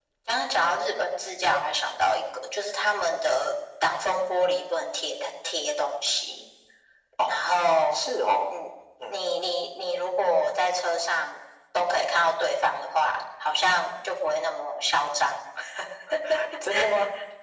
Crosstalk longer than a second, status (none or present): none